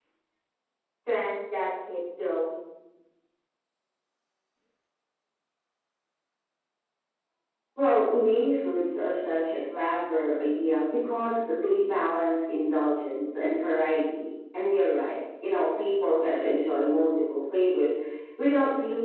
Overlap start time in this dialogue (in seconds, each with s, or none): none